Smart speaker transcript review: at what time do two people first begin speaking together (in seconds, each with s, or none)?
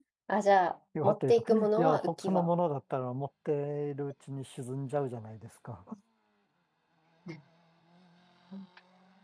1.0 s